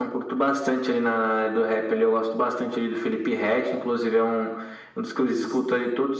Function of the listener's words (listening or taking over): listening